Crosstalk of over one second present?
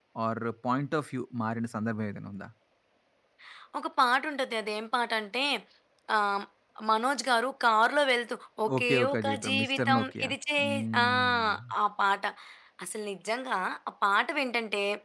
Yes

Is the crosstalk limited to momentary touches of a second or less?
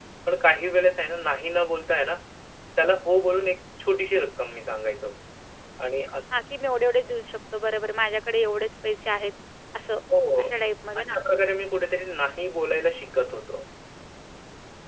Yes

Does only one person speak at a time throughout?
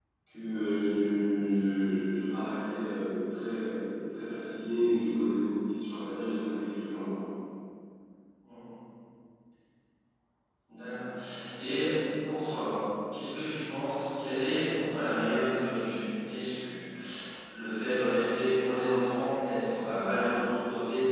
Yes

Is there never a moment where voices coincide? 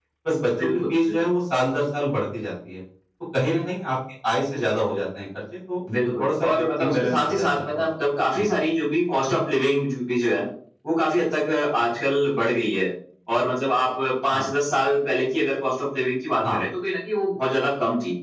No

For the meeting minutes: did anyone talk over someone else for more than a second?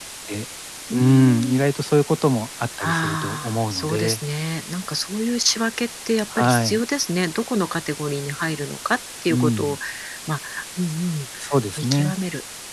Yes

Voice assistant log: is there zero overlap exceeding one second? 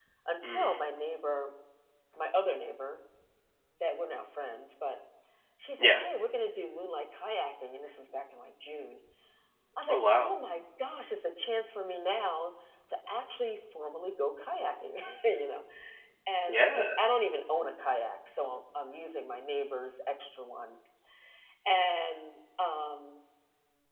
Yes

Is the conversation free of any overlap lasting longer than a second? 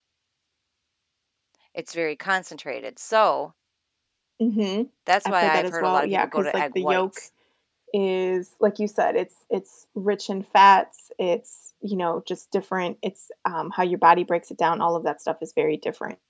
No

